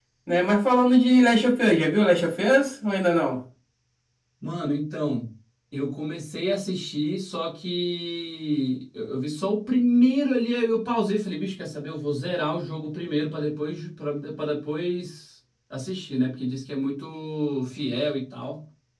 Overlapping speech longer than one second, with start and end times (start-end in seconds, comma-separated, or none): none